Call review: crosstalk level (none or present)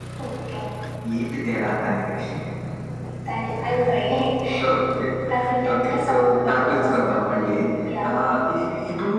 present